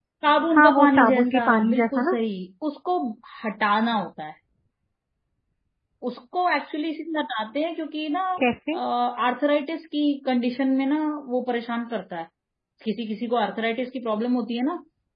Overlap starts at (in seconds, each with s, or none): 0.6 s